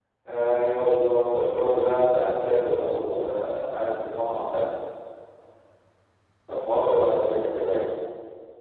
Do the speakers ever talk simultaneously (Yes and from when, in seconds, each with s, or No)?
No